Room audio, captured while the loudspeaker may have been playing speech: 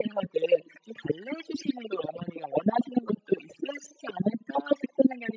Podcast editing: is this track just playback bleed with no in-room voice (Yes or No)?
Yes